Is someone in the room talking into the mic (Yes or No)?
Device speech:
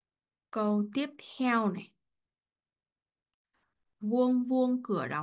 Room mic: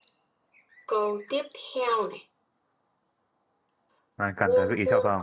Yes